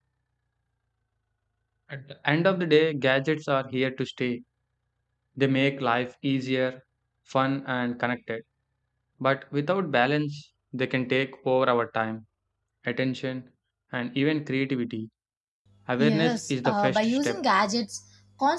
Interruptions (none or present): present